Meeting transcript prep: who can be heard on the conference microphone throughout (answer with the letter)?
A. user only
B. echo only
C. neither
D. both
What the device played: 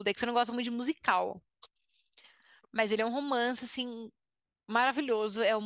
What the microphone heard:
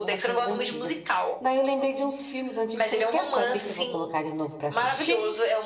D